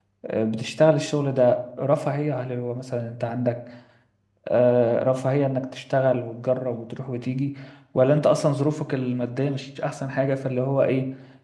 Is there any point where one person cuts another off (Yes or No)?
No